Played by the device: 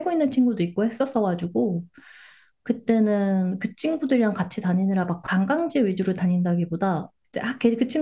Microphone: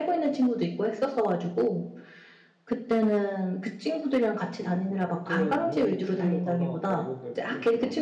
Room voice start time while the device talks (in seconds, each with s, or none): 4.5 s